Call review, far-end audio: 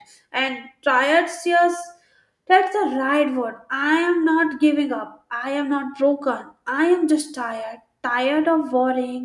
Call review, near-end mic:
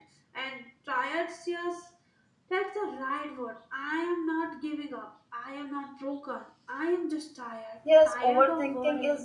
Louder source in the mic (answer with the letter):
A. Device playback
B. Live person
B